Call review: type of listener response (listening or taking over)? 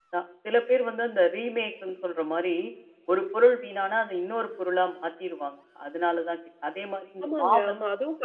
taking over